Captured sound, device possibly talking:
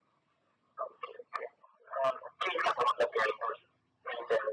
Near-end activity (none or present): none